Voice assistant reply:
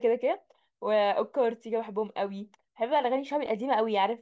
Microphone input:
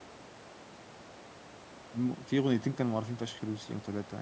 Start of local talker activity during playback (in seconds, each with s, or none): 1.9 s